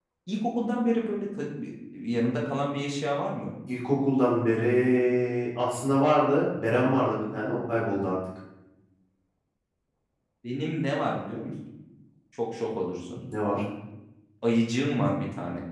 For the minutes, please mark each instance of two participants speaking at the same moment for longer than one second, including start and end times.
none

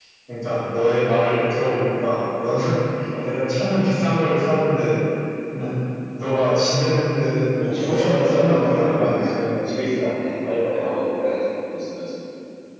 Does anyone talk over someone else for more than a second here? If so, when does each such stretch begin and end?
7.6-9.3

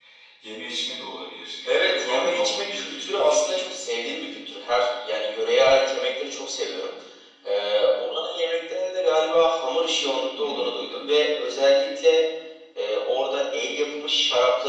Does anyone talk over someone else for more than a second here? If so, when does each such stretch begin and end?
1.6-3.7

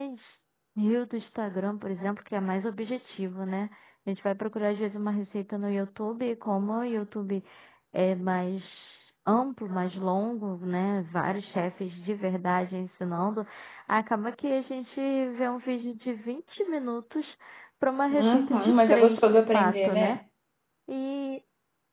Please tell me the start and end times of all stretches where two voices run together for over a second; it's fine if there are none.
18.1-20.2

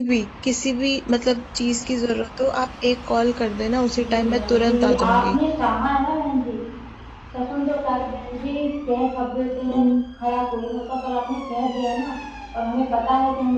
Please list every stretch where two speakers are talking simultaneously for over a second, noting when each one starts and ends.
4.0-5.4

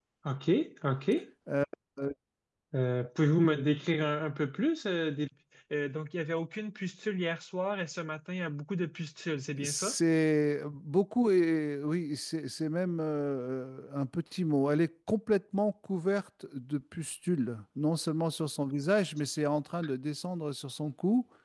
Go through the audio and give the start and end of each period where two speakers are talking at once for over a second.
none

